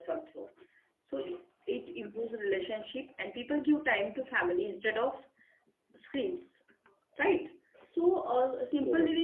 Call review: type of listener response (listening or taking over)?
listening